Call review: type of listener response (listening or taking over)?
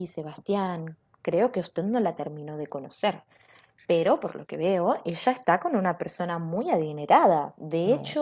listening